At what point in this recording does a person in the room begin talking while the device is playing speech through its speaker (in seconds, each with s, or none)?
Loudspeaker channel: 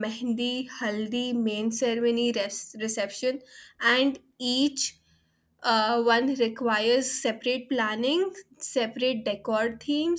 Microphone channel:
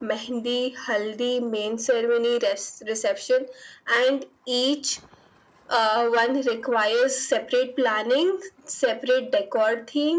none